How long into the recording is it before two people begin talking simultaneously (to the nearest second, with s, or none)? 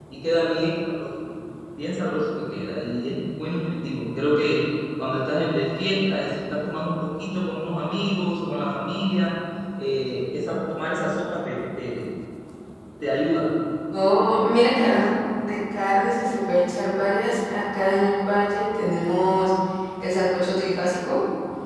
none